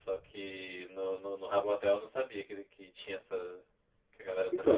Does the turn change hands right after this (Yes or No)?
Yes